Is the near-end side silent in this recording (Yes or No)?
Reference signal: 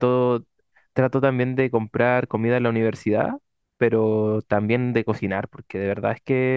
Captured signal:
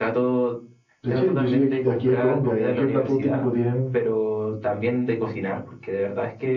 No